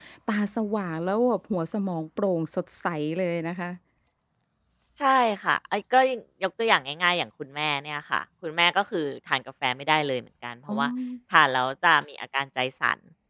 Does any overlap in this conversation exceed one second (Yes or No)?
No